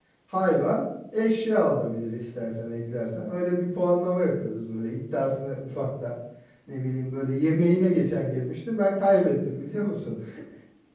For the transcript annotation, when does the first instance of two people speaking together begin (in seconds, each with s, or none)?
none